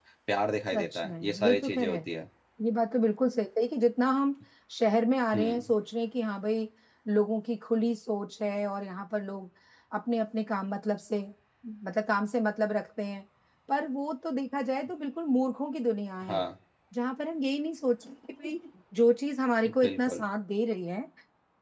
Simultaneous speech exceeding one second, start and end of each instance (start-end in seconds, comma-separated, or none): 0.7-2.0